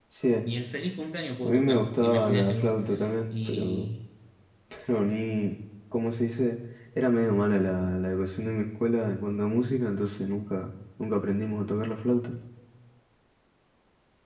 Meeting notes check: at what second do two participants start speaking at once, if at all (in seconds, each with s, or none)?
1.5 s